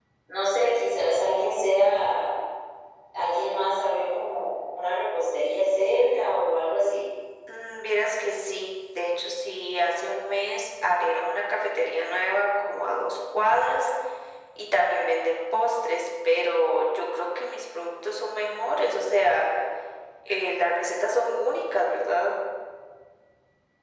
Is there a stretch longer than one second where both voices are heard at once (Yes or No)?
No